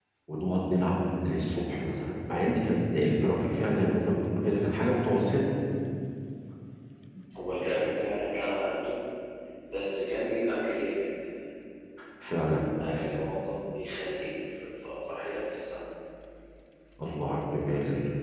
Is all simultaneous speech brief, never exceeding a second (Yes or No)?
Yes